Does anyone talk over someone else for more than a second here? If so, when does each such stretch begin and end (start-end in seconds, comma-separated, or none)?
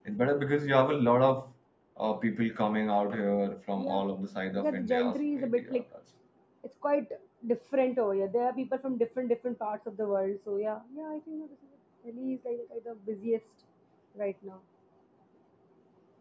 4.6-5.8